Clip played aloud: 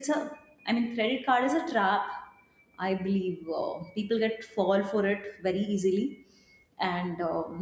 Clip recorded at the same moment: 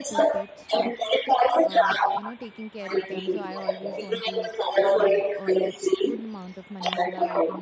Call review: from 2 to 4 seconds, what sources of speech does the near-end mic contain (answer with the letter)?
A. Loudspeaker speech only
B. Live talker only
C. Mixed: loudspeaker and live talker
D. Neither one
C